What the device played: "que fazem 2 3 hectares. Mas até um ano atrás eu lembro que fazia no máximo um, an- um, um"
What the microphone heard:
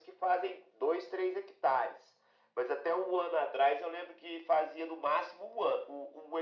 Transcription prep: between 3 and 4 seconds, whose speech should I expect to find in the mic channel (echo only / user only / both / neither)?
echo only